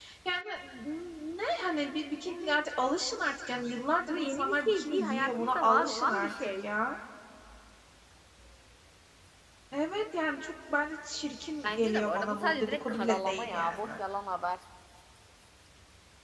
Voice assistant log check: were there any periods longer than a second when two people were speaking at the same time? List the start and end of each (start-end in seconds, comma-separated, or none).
4.1-6.7, 11.6-13.8